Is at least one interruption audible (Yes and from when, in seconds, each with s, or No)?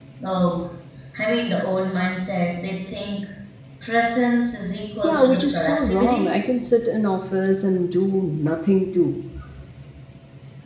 Yes, from 5.0 s